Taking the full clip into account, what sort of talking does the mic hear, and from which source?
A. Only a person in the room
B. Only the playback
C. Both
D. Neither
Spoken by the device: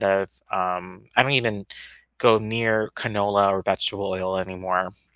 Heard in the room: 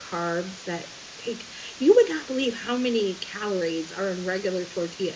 A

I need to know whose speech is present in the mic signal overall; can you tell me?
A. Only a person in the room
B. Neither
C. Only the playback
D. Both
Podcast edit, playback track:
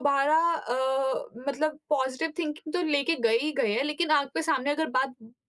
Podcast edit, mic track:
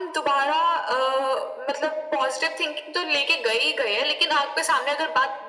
C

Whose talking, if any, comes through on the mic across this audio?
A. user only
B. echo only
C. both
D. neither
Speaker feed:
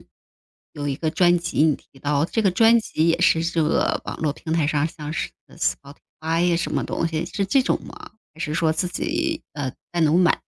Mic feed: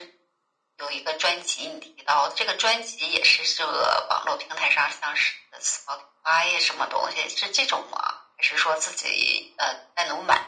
B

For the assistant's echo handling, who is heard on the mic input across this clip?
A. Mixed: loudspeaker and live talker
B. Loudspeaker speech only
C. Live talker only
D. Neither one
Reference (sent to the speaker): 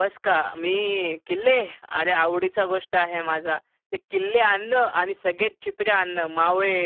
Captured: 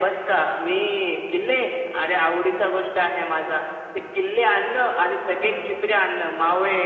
B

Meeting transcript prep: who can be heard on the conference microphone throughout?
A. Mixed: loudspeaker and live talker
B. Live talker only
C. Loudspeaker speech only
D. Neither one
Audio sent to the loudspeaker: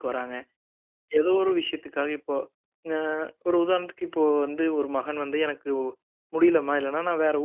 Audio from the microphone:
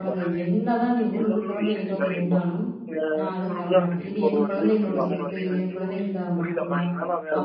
A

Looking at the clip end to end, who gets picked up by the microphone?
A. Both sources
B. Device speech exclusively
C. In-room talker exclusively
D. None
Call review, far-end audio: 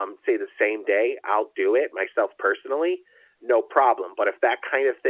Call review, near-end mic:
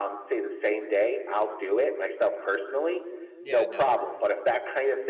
A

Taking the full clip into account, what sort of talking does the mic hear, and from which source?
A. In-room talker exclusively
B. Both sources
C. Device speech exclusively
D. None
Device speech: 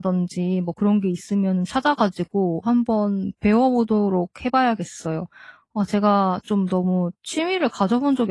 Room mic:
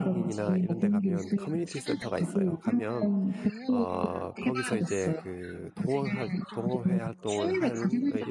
B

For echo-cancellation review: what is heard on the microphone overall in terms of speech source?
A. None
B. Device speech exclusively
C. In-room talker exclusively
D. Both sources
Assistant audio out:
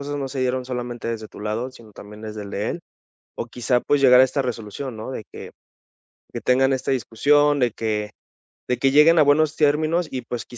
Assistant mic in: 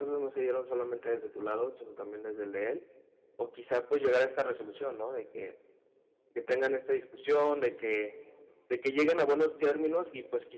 B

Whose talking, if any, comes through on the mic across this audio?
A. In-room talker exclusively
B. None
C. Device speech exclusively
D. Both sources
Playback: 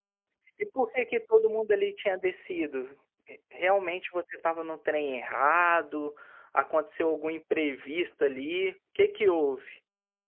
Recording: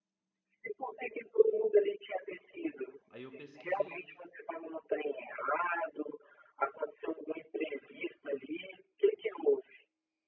D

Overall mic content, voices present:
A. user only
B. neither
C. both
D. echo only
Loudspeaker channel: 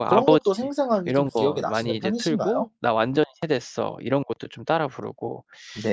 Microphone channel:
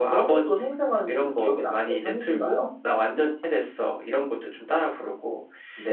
D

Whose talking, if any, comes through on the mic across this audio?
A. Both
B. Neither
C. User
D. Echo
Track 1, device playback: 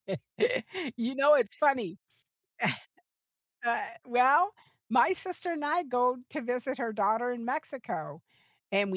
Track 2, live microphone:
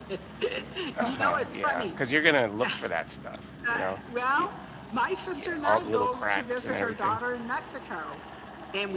A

